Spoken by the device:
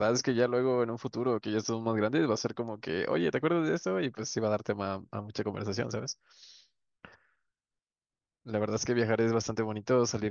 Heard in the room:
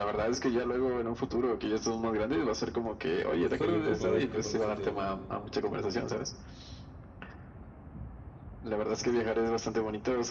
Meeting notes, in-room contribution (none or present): present